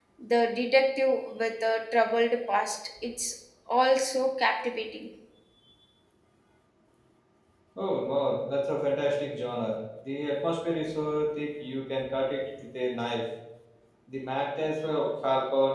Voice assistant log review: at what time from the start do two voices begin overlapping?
none

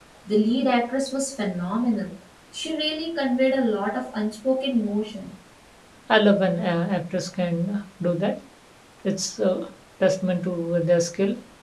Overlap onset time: none

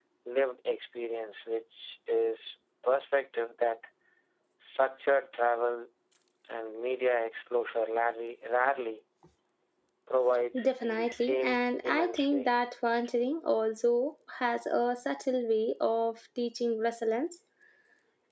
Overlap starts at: 10.6 s

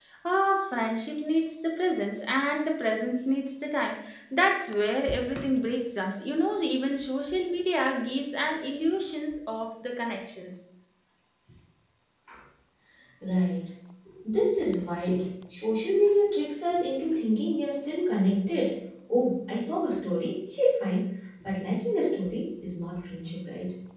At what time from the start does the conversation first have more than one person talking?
none

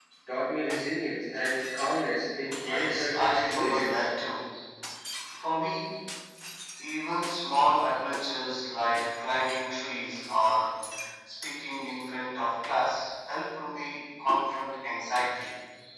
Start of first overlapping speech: 2.4 s

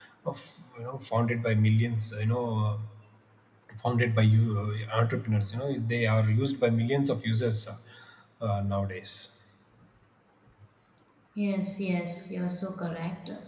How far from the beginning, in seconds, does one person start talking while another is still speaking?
none

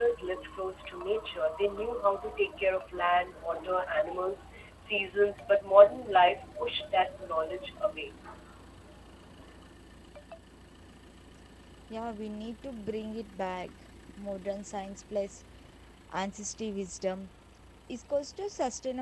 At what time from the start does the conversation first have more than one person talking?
none

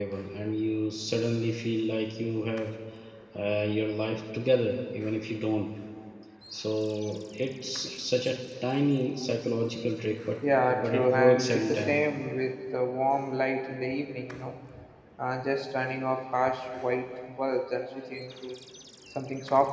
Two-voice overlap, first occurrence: 10.7 s

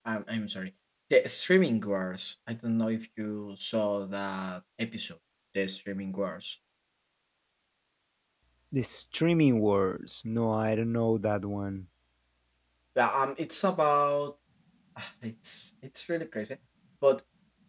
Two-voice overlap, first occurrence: none

